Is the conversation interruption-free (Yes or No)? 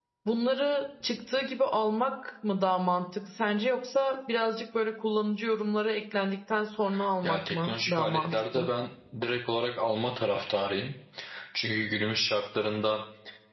No